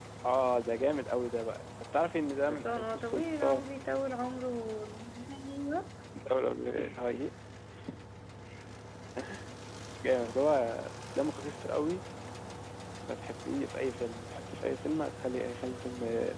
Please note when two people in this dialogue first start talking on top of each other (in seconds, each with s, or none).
2.4 s